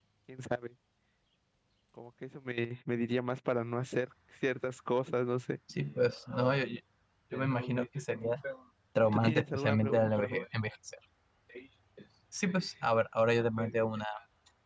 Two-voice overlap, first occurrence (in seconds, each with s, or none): 9.1 s